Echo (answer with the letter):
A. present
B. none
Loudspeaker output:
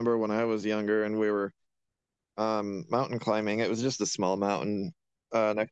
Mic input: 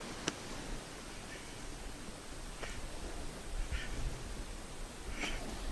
B